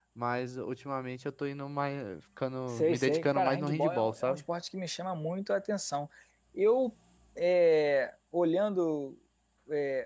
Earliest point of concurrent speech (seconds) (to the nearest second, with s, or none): 3 s